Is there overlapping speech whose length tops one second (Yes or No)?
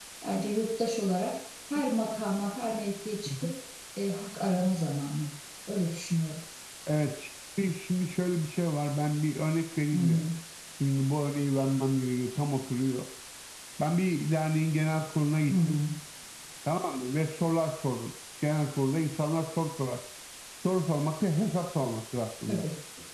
No